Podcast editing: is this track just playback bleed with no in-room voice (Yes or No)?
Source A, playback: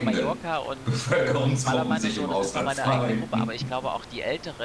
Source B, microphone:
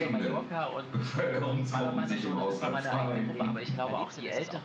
No